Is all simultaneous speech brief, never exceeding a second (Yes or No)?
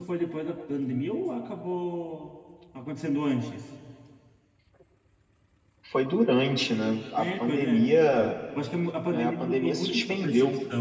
No